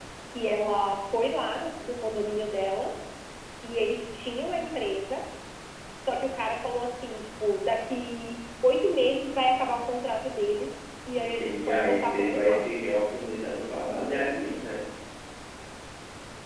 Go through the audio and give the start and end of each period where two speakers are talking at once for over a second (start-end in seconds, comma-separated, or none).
11.2-12.6